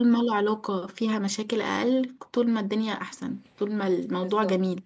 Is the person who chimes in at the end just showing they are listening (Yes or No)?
No